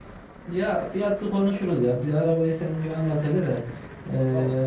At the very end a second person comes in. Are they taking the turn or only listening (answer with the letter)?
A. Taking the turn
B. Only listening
B